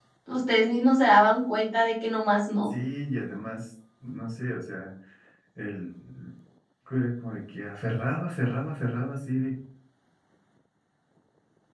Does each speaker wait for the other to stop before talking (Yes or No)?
Yes